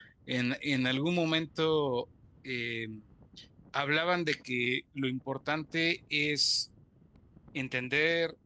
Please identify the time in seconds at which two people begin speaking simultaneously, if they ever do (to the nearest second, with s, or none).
none